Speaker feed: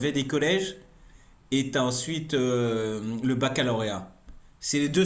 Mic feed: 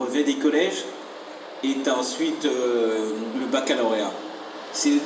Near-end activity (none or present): none